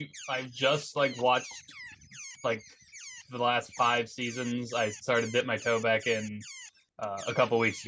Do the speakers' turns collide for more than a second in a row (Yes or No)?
No